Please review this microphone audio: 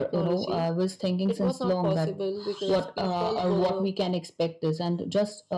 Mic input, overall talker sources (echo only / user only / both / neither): echo only